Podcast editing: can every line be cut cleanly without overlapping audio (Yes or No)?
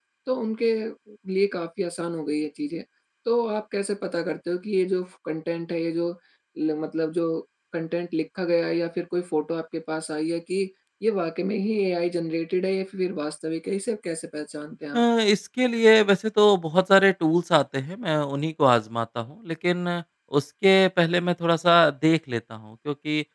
Yes